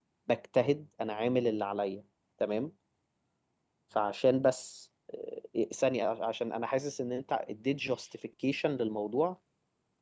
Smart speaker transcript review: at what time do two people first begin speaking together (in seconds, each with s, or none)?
none